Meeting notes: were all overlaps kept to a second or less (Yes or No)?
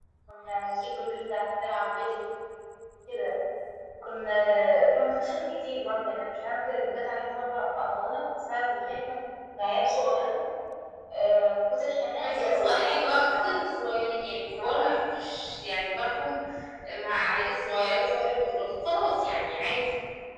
No